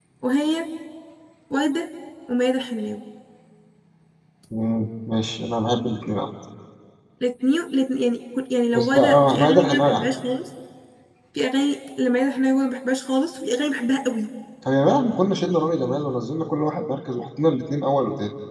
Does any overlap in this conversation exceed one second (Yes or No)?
Yes